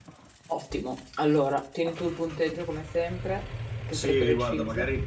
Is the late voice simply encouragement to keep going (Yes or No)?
No